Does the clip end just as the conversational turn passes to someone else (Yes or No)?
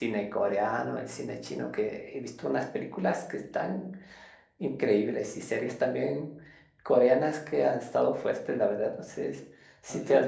No